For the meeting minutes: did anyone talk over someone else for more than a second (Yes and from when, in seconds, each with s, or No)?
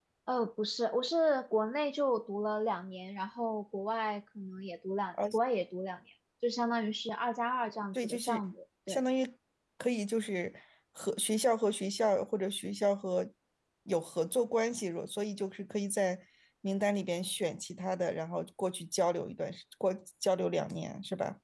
No